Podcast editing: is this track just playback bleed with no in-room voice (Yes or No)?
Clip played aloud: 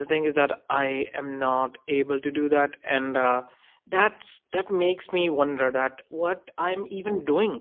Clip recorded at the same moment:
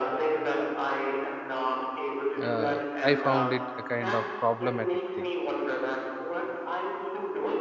No